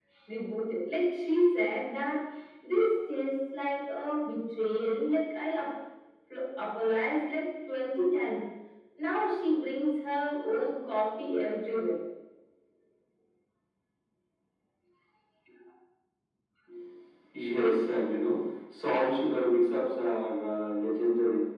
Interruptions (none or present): none